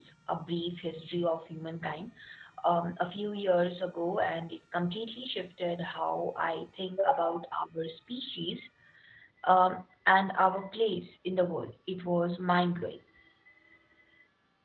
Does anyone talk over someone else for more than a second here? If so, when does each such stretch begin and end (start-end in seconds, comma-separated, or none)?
none